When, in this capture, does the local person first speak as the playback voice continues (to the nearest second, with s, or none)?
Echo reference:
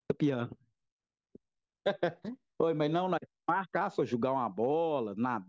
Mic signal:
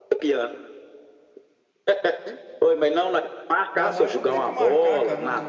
4 s